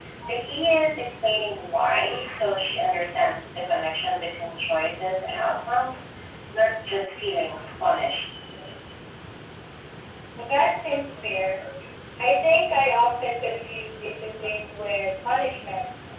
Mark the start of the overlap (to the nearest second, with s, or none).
none